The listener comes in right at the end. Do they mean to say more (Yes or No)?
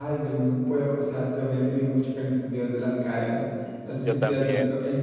No